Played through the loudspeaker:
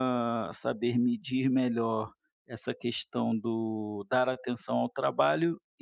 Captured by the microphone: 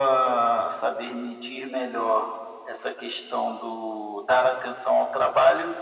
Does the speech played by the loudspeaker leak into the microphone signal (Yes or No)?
Yes